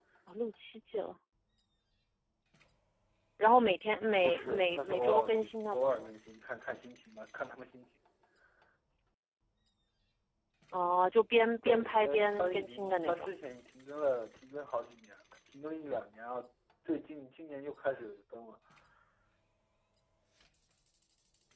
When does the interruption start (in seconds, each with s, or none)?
4.2 s